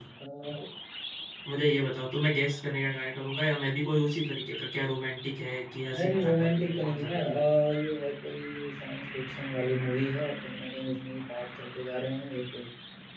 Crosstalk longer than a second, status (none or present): present